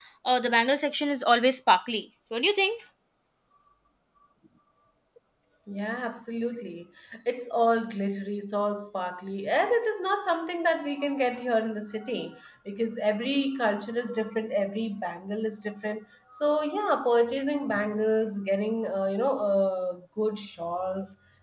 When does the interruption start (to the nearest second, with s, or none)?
none